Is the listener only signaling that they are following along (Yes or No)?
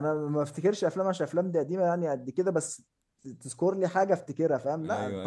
No